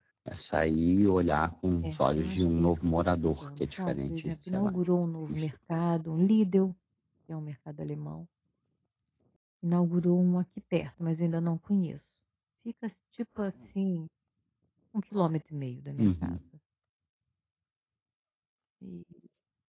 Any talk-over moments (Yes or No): Yes